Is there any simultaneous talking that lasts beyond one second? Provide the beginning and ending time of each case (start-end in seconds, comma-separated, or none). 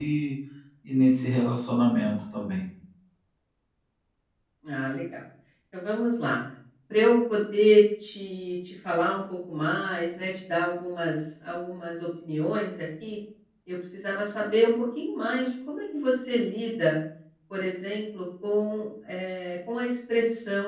none